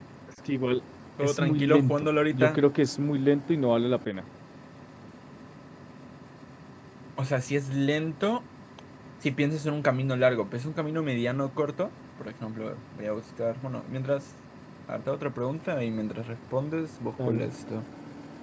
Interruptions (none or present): present